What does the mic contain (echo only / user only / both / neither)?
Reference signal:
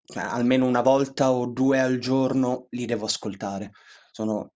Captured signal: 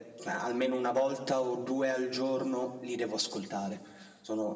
echo only